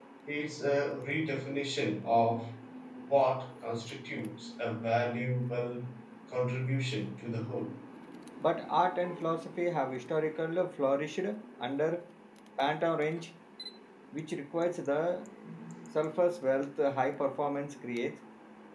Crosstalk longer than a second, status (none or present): none